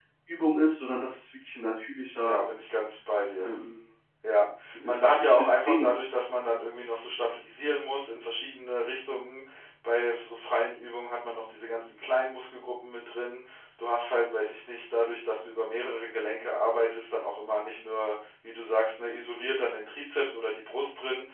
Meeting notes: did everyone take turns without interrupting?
No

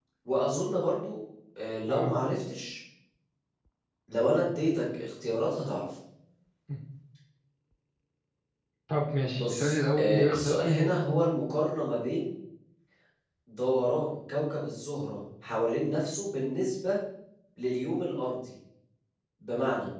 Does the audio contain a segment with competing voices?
Yes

